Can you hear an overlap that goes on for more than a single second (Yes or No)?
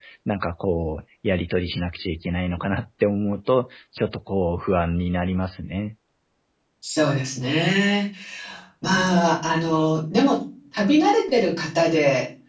No